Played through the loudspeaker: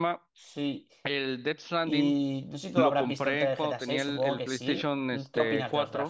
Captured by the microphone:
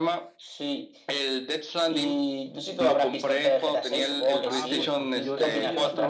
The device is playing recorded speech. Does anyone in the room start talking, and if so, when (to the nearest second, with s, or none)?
4 s